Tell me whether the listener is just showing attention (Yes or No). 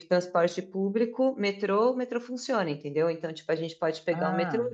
Yes